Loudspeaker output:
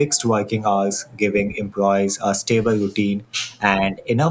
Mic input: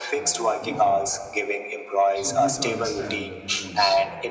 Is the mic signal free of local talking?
No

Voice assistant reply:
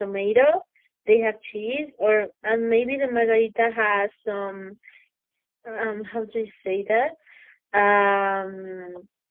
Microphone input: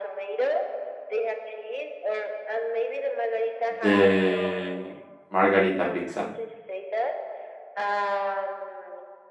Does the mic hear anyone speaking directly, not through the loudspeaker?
Yes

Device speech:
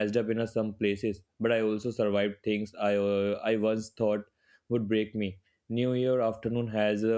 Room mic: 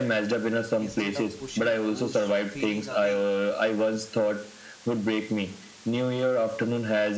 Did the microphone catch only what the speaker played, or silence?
No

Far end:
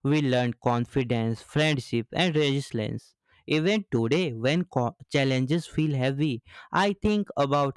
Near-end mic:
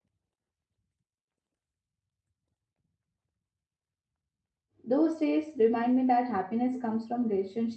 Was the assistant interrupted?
Yes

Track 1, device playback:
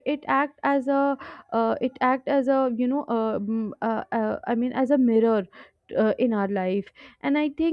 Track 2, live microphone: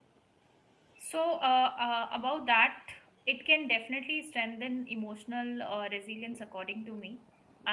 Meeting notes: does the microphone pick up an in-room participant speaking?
Yes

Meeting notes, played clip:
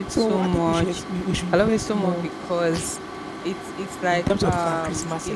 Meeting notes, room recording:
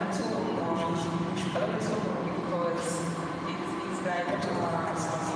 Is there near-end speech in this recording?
No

